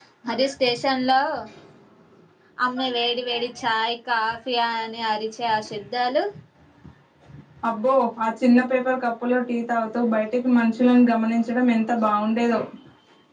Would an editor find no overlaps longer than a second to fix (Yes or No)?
Yes